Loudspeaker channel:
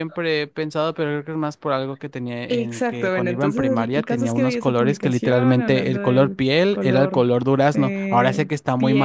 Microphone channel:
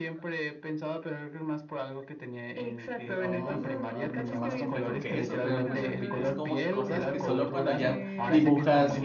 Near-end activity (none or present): present